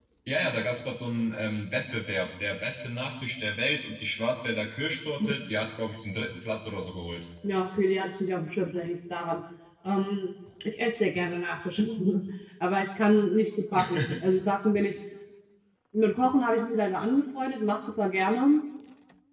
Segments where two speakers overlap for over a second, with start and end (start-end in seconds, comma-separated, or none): none